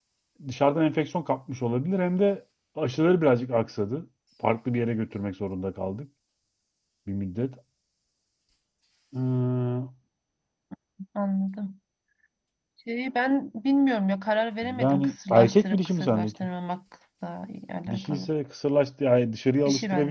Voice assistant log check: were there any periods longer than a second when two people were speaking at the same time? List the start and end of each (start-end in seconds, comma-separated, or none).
14.6-16.3